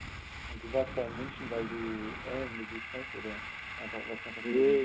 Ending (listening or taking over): taking over